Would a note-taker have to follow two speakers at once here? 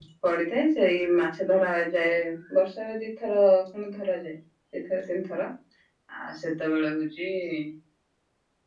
No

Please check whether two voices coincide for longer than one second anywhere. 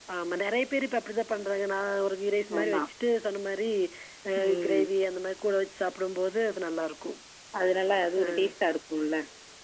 No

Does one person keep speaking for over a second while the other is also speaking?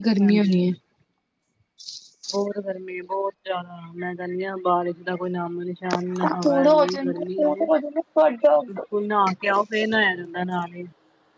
Yes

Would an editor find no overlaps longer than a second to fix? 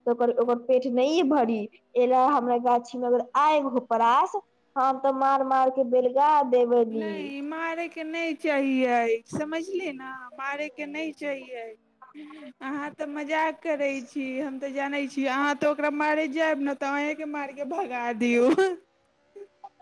Yes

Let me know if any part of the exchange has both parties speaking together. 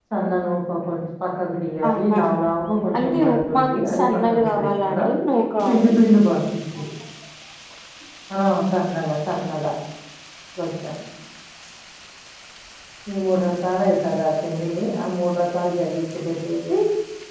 Yes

